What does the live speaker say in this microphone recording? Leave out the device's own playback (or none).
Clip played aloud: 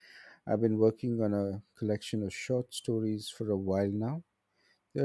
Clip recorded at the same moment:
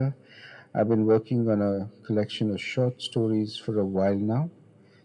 none